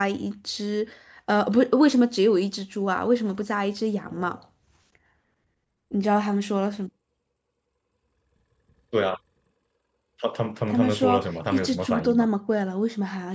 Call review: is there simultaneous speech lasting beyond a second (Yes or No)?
Yes